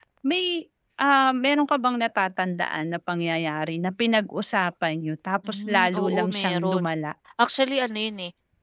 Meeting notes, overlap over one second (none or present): present